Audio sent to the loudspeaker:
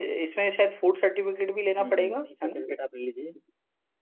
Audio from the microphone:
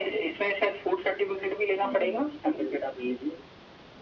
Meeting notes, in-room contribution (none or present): none